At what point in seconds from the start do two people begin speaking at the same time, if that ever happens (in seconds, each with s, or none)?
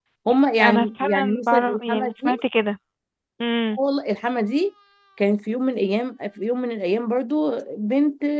0.6 s